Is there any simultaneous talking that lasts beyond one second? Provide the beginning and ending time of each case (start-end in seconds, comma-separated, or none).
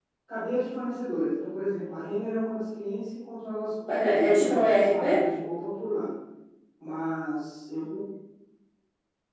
3.9-5.2